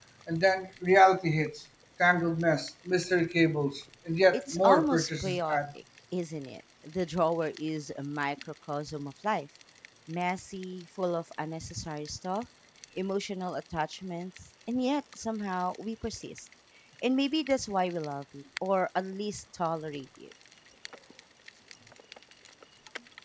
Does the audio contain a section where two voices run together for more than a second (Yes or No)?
Yes